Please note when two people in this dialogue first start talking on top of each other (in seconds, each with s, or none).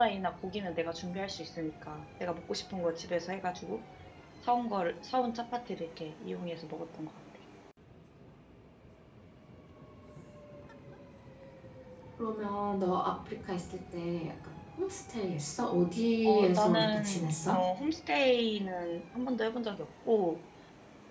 16.2 s